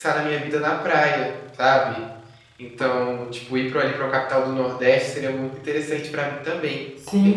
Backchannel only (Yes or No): No